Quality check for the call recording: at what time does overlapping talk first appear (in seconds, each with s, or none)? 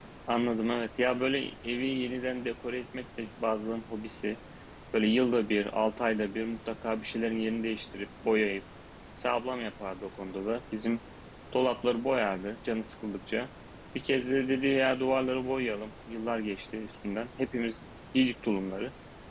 none